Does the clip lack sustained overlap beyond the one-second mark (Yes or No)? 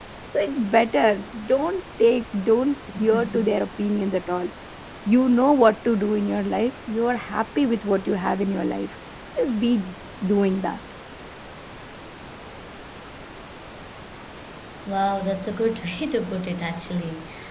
Yes